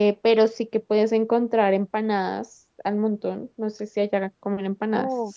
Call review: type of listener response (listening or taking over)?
taking over